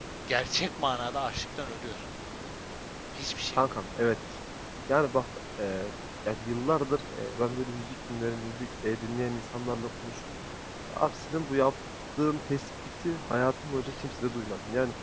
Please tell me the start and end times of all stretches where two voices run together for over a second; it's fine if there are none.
none

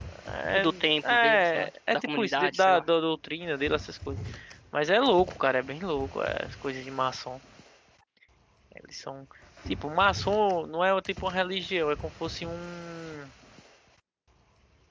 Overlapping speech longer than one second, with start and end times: 1.1-2.8

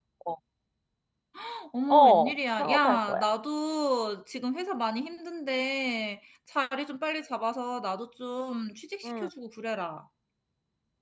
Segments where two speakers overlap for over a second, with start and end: 1.9-3.2

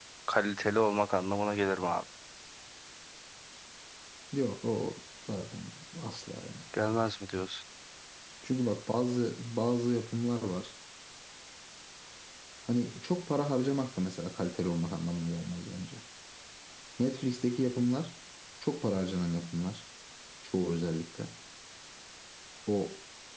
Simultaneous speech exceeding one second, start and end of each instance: none

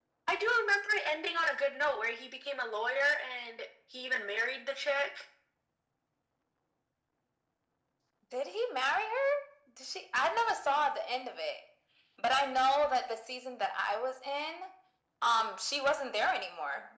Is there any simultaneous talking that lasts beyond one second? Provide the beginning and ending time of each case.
none

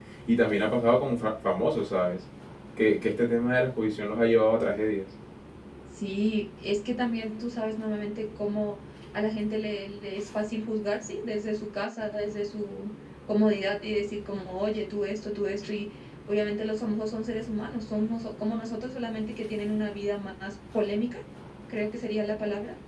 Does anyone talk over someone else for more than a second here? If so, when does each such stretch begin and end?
none

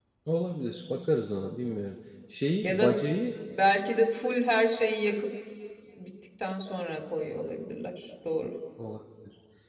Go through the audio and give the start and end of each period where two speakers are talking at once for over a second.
none

